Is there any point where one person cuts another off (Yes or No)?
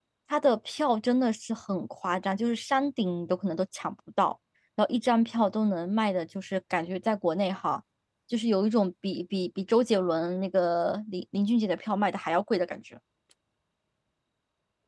No